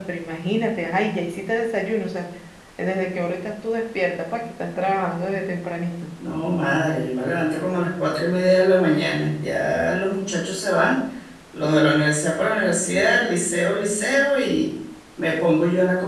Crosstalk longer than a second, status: none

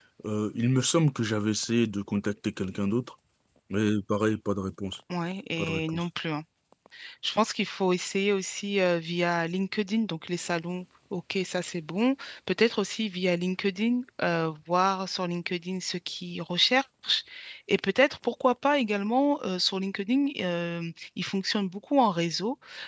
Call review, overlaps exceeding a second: none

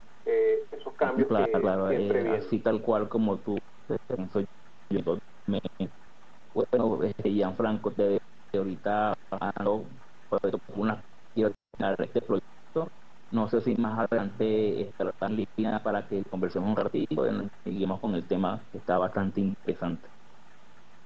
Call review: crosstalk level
present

